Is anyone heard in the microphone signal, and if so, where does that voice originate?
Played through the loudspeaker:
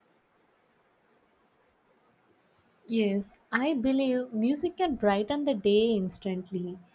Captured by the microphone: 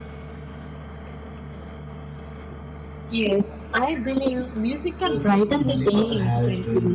both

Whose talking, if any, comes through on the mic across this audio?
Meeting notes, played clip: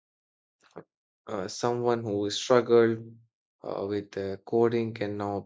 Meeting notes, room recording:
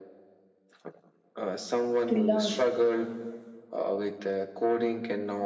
both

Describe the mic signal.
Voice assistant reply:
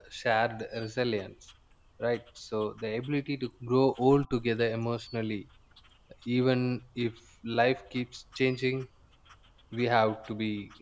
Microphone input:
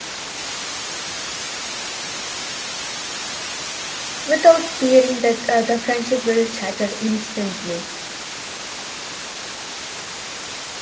user only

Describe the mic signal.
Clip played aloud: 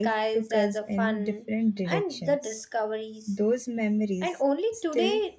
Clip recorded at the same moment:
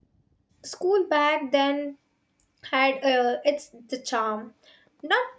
user only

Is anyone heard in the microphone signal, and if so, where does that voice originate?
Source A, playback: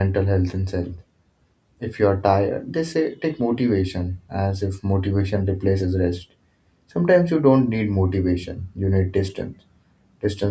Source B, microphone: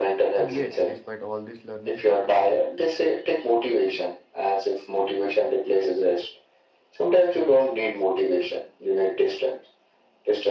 both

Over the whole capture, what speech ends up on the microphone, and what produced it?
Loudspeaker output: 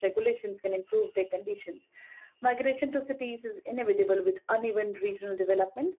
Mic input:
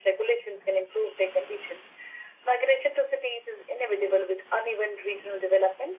echo only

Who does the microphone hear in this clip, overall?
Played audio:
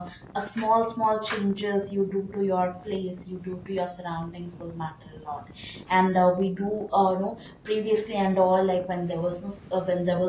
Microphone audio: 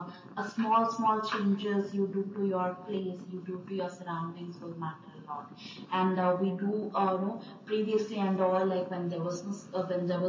echo only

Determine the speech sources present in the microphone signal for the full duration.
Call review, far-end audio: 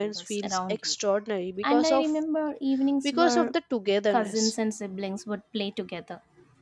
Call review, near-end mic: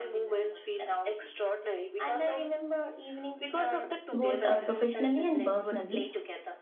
both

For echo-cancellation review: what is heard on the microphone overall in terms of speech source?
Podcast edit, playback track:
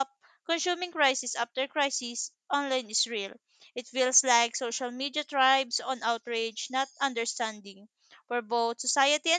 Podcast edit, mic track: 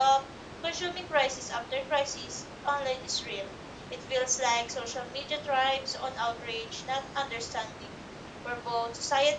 echo only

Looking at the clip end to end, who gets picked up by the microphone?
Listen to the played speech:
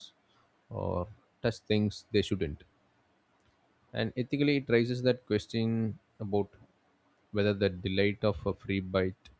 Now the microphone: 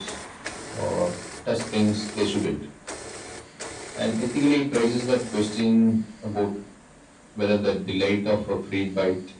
echo only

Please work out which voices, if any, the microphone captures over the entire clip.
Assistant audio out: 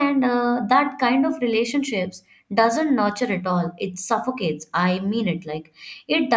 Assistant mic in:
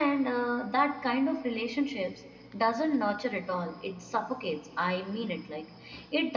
echo only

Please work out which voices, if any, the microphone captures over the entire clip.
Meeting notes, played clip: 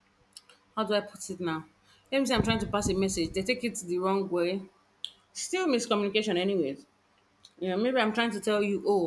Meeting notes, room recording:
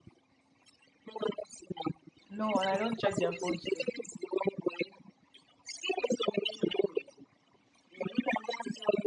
both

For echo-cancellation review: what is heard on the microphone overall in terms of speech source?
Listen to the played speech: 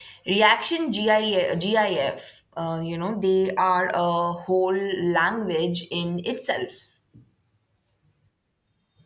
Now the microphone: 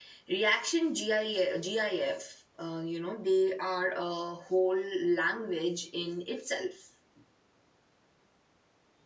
echo only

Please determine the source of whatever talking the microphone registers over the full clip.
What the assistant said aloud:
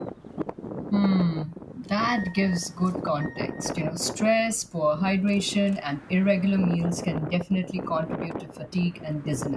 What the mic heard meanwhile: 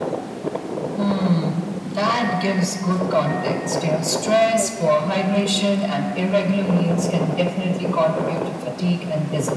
both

